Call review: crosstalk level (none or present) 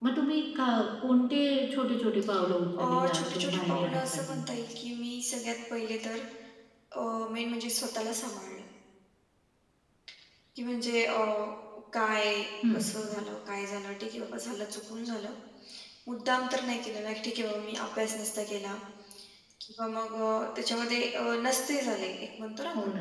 present